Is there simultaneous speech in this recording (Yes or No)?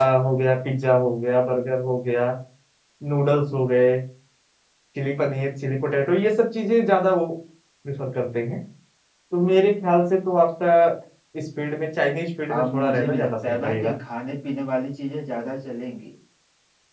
Yes